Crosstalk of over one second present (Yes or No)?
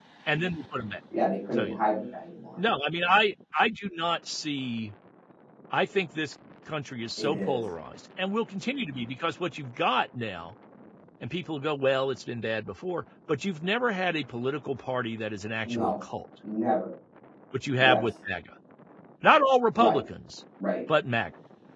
No